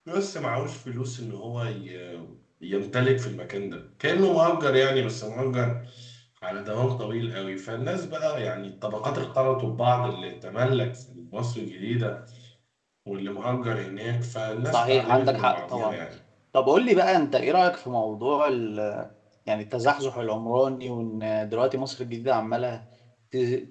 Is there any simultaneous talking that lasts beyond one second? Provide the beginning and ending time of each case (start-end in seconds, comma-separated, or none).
14.7-16.0